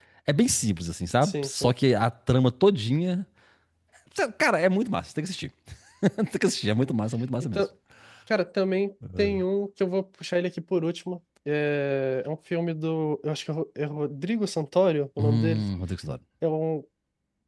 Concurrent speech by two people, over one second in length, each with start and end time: none

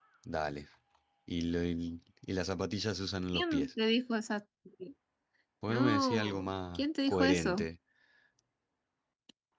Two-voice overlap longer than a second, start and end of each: 5.7-7.7

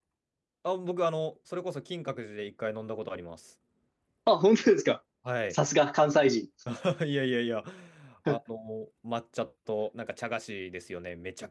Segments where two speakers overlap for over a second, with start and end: none

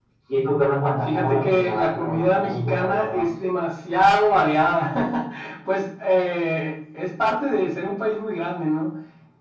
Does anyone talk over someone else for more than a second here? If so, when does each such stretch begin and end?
1.0-3.3

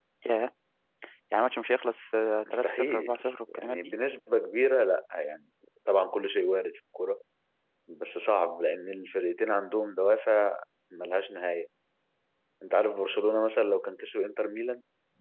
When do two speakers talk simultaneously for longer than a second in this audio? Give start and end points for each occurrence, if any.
2.5-3.9

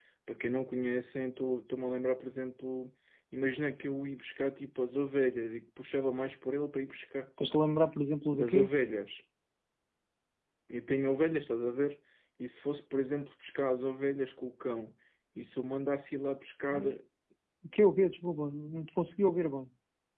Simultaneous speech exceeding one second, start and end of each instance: none

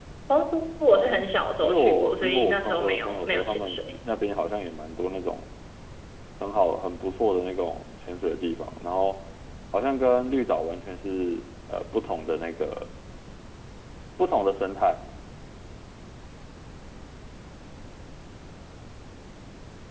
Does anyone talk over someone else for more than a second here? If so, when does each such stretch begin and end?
1.6-3.8

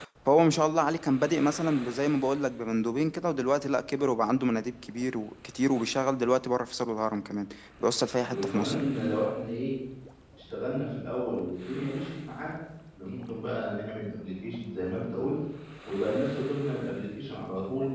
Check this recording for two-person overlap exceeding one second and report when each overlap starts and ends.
none

